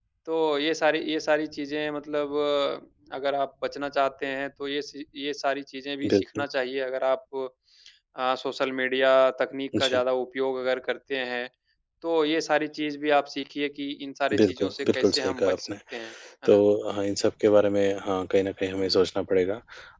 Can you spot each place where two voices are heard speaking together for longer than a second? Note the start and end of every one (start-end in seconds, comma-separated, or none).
14.3-15.6